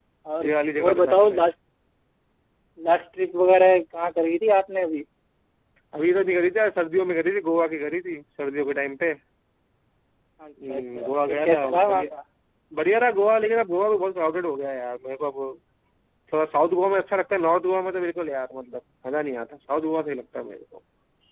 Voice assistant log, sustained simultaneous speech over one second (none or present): present